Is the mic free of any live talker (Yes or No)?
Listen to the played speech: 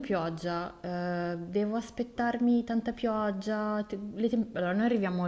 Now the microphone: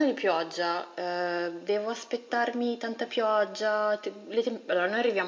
Yes